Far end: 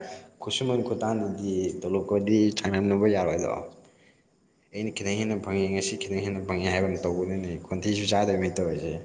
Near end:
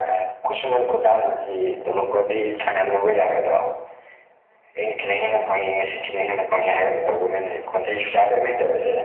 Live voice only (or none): none